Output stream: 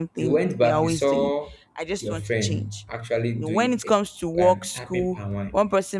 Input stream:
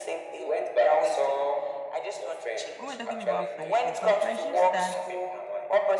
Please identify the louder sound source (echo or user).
echo